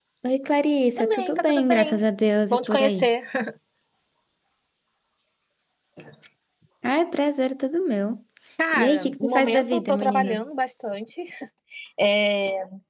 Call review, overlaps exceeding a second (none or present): present